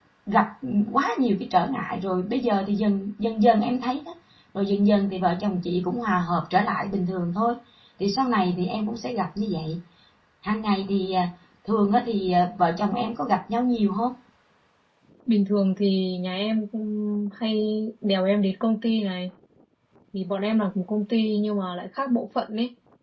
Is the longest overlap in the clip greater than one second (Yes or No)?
No